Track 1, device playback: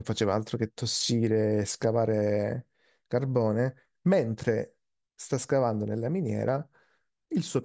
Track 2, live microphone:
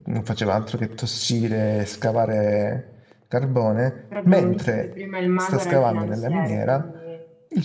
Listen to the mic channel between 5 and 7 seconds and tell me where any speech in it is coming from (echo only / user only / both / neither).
both